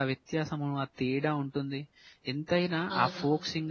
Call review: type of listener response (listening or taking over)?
listening